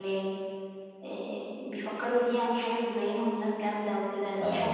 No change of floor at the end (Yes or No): No